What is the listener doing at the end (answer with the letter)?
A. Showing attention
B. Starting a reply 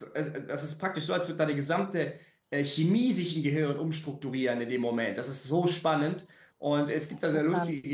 A